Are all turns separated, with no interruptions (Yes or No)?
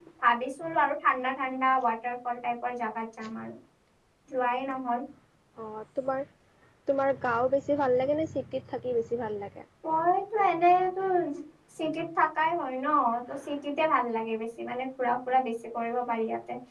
Yes